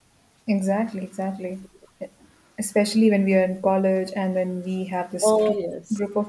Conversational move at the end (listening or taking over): listening